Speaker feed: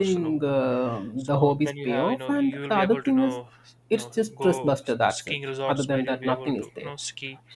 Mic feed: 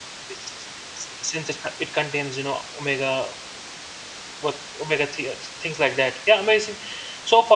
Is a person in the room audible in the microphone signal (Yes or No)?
Yes